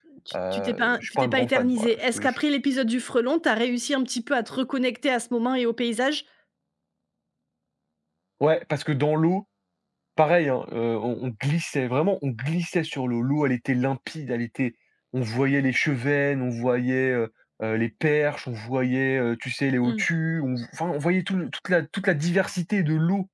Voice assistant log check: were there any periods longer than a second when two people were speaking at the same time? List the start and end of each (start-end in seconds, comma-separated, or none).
0.5-2.3